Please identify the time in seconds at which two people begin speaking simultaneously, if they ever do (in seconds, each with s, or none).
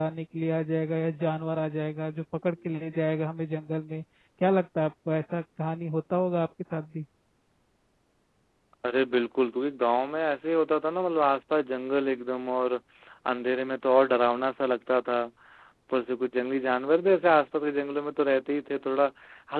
none